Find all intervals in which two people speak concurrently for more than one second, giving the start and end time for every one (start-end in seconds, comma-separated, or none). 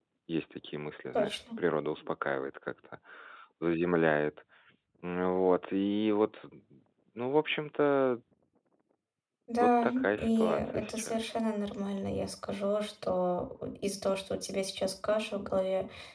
9.6-11.3